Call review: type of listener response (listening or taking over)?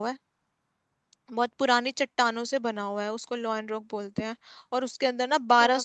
listening